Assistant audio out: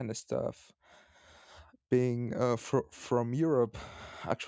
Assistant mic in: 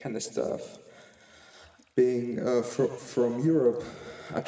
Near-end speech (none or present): none